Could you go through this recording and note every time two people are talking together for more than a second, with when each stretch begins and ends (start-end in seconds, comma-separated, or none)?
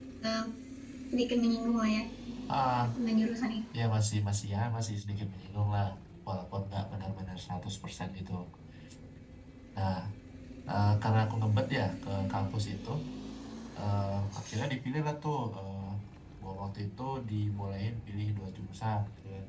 none